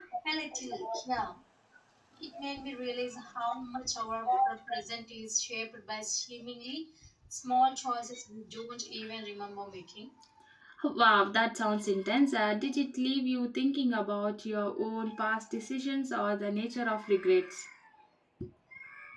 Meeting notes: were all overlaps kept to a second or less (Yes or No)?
Yes